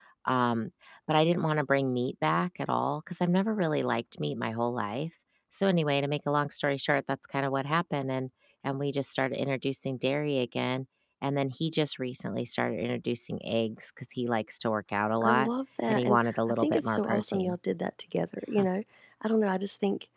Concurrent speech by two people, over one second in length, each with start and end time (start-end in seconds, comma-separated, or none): 15.9-17.6